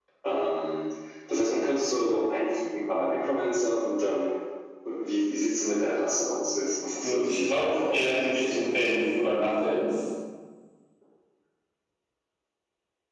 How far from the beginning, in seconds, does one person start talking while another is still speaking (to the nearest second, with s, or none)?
7 s